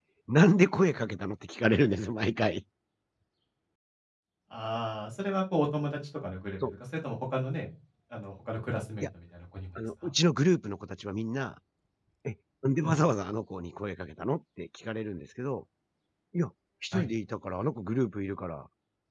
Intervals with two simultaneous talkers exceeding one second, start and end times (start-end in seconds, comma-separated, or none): none